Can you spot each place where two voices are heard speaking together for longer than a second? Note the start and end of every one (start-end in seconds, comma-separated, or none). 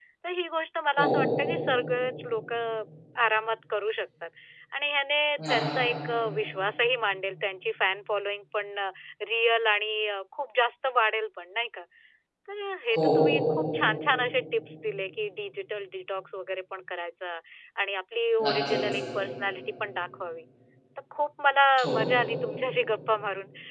none